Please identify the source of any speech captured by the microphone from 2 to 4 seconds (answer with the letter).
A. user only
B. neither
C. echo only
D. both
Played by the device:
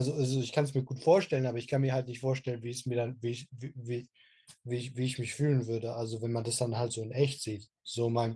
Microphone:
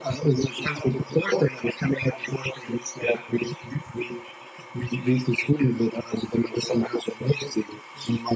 C